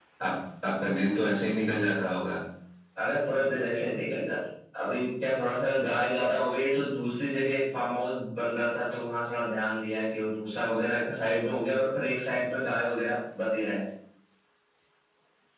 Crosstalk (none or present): none